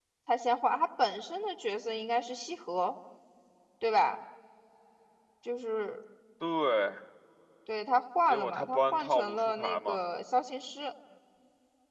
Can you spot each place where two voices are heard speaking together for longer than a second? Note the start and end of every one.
8.3-10.0

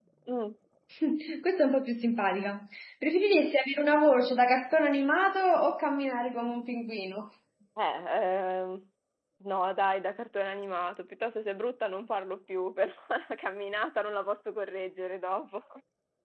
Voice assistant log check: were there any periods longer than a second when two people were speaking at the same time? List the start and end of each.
none

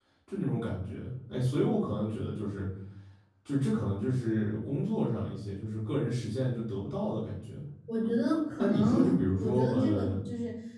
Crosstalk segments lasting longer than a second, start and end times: 8.6-10.1

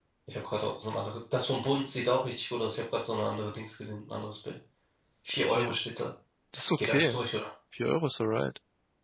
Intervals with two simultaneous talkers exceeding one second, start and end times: none

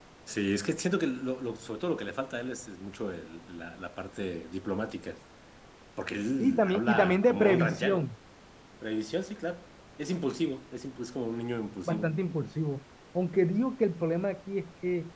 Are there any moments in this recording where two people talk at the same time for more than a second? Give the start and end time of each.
6.4-8.0

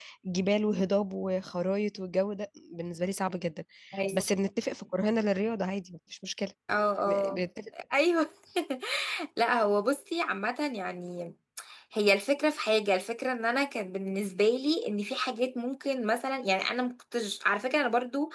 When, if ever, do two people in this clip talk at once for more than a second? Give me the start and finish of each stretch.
none

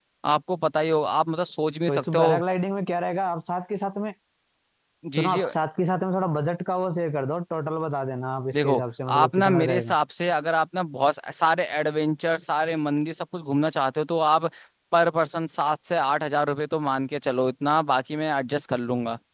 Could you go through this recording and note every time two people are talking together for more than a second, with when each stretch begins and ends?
8.5-9.9

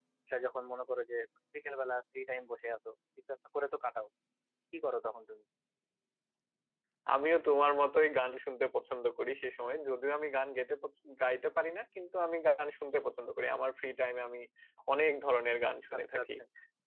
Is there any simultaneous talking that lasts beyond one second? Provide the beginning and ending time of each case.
none

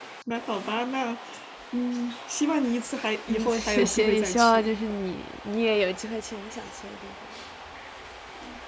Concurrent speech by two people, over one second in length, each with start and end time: 3.3-4.7

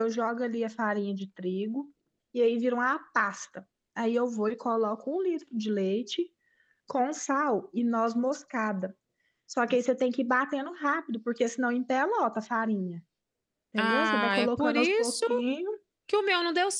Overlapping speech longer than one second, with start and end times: 13.8-15.2

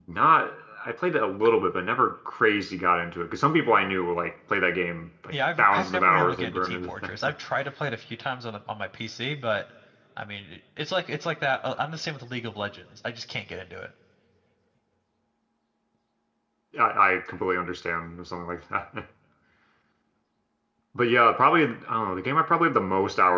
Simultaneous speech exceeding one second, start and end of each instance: 5.3-7.3

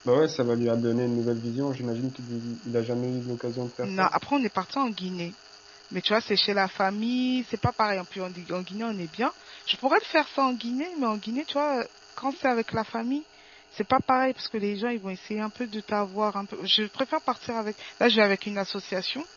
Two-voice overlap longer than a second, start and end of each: none

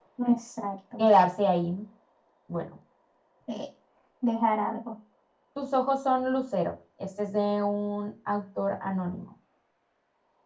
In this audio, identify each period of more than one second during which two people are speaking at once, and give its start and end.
none

